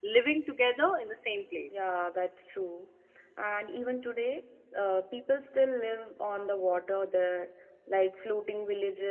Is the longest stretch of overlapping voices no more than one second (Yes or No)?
Yes